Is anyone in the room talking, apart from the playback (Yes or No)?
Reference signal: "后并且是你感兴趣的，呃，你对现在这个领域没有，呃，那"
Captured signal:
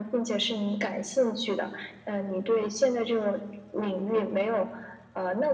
No